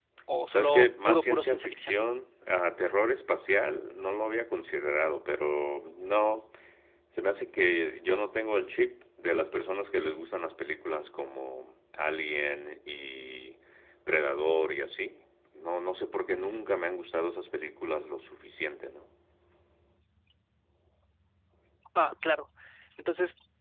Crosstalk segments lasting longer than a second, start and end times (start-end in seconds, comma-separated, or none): 0.5-1.9